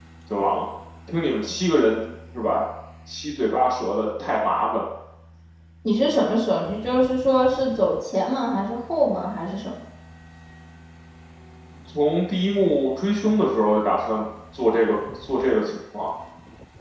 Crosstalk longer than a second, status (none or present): none